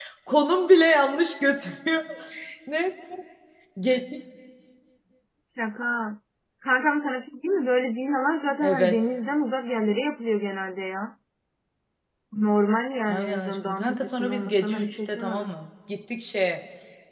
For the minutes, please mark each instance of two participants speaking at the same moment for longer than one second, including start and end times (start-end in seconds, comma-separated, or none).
13.1-15.5